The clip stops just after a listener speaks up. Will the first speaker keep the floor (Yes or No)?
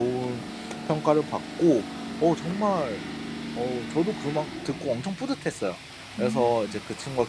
Yes